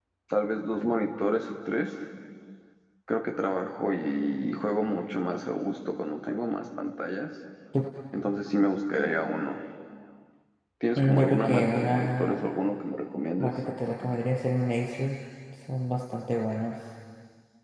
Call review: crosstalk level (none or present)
present